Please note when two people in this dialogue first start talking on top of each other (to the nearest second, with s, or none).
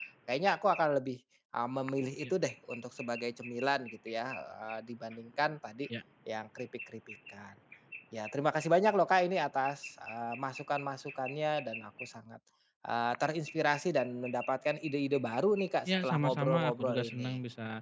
16 s